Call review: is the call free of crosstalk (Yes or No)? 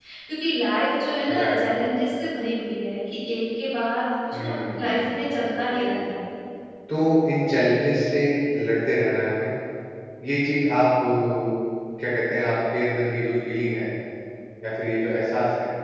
No